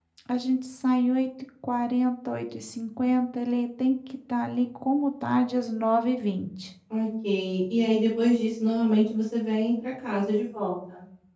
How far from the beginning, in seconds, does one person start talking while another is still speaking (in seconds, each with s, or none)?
none